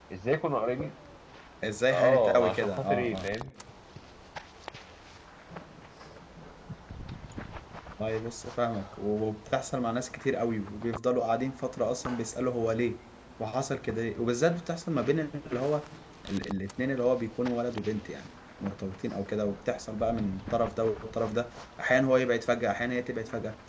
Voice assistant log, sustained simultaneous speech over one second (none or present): present